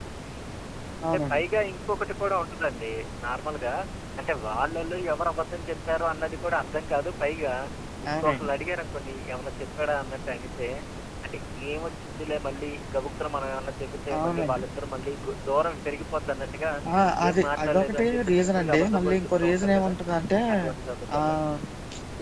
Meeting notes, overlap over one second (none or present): present